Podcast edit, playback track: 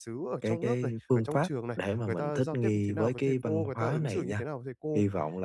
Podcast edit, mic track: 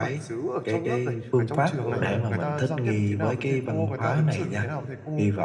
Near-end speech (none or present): present